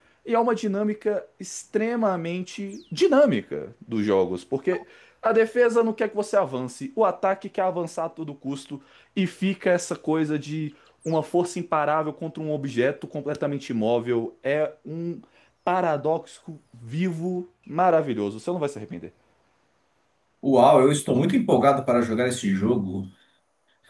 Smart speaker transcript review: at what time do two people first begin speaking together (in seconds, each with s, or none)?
none